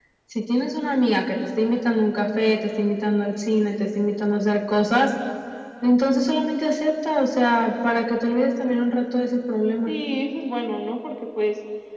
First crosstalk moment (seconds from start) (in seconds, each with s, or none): none